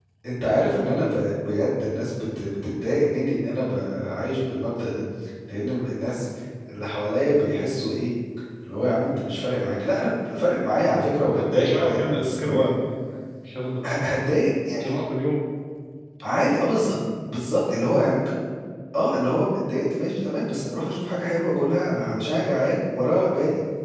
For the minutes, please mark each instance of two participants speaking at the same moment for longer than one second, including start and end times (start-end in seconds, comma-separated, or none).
11.3-12.7